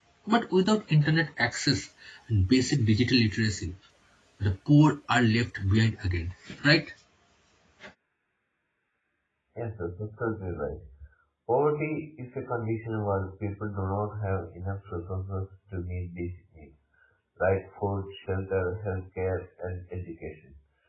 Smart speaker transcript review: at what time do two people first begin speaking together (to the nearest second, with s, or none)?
none